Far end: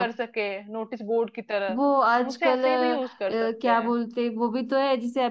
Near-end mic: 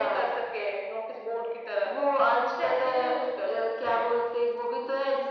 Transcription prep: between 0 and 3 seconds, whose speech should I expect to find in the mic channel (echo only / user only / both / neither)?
echo only